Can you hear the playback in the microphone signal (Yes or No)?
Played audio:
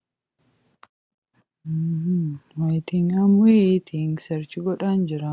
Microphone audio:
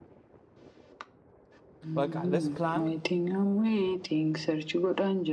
Yes